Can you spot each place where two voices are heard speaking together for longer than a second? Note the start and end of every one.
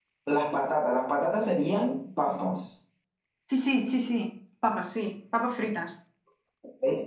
none

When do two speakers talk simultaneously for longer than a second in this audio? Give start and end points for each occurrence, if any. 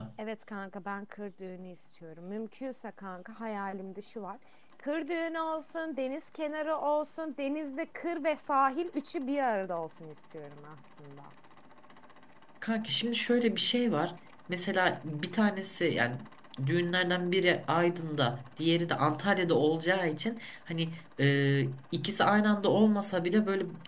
none

